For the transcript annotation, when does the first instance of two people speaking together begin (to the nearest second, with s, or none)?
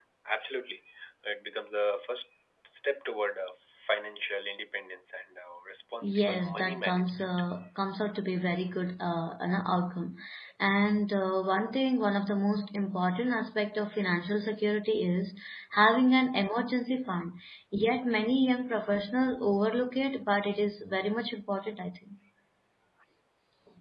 6 s